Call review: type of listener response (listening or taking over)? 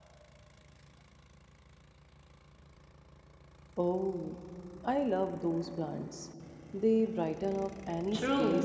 taking over